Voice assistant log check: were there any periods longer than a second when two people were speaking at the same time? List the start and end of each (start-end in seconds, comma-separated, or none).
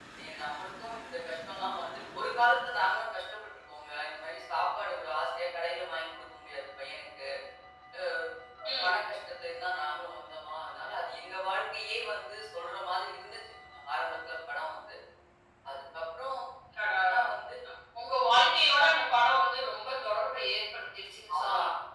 none